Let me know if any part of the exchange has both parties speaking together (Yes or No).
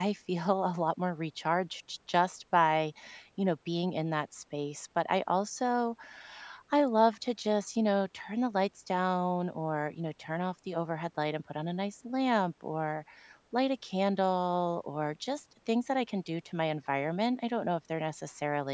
No